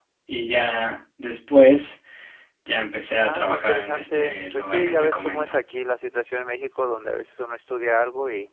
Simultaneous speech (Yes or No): Yes